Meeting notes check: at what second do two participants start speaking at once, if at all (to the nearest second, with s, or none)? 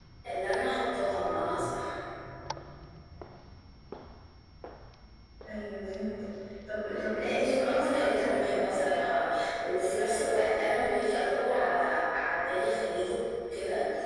7 s